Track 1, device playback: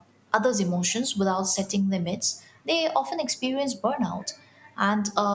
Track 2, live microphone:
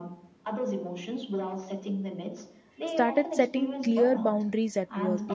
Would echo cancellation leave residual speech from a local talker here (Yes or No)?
Yes